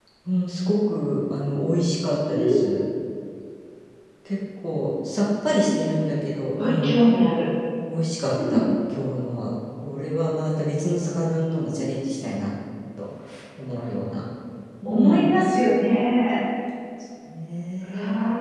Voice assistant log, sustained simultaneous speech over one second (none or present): none